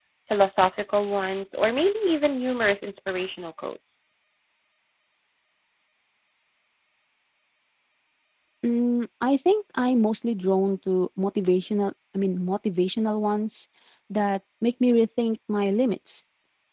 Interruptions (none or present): none